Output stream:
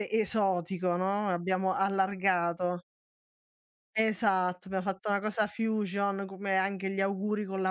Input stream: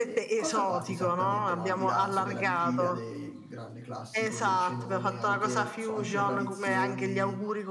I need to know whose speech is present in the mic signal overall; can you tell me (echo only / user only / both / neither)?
both